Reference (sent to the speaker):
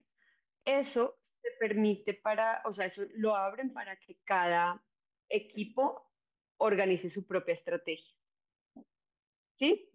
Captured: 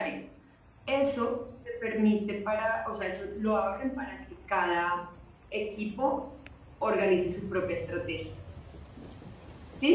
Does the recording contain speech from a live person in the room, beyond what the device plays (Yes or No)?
No